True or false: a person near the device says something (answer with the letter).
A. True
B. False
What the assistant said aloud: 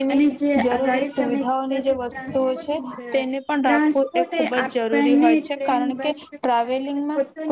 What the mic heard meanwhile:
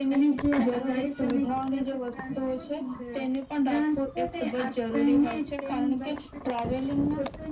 B